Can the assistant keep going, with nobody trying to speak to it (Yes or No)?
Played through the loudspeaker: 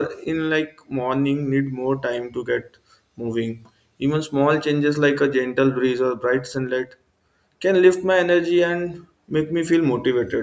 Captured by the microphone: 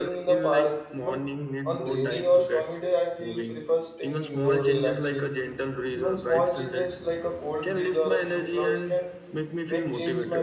No